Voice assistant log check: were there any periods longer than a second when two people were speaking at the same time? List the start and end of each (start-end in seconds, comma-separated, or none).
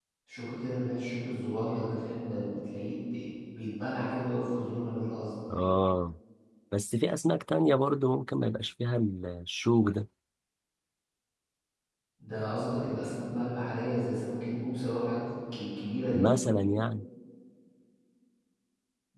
none